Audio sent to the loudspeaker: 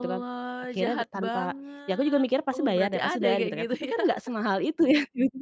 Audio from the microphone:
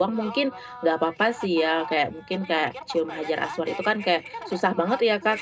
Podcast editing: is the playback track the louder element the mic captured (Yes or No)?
No